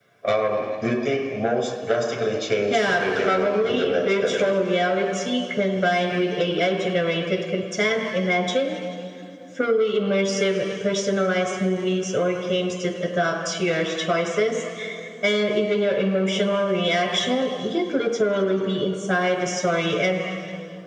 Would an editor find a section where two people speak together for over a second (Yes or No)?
Yes